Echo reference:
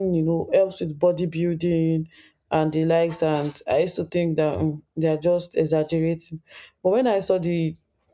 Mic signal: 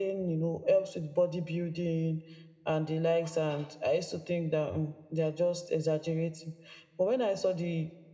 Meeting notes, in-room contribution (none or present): none